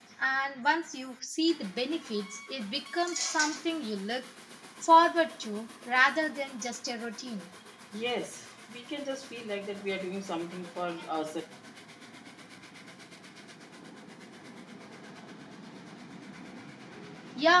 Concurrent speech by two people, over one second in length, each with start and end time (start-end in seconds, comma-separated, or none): none